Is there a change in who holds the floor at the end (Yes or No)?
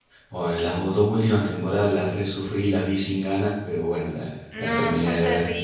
Yes